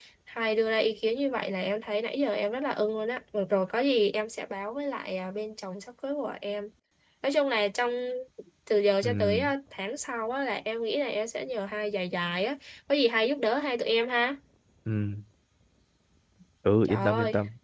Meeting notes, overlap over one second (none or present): none